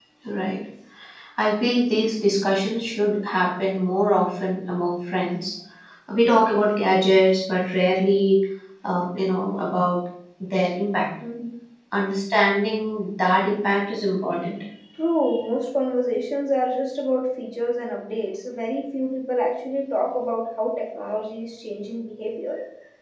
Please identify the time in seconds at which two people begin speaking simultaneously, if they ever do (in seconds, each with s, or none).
none